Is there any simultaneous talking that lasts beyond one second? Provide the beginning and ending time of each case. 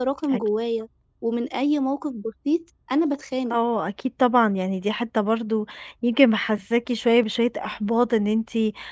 none

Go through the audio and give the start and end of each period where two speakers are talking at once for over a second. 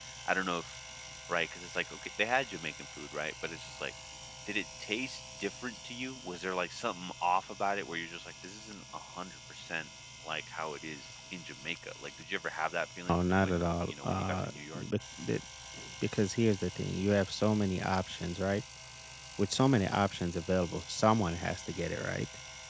13.1-14.8

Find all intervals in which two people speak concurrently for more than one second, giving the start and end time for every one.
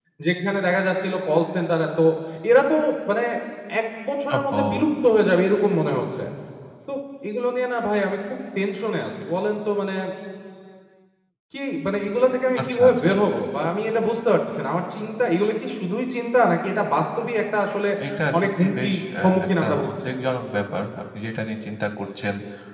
18.4-19.9

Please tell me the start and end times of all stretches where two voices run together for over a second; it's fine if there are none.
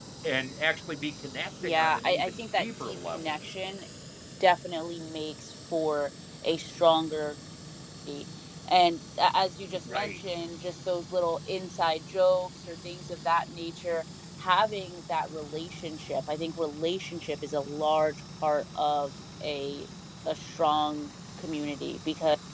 1.6-3.3

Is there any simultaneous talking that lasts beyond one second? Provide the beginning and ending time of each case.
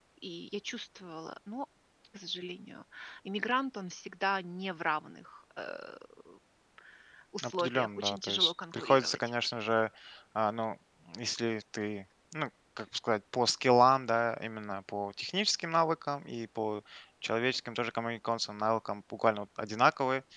7.4-9.2

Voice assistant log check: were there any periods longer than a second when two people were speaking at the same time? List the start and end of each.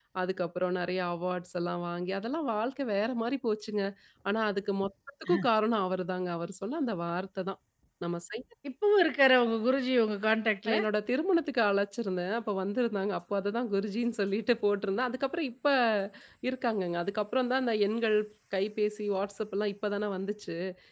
none

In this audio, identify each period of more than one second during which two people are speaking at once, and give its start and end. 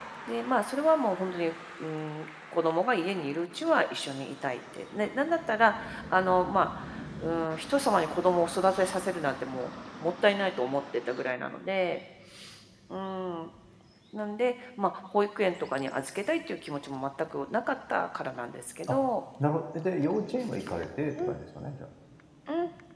none

